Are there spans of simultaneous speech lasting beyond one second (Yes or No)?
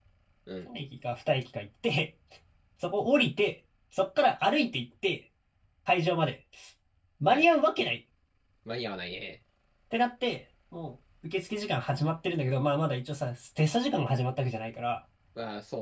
No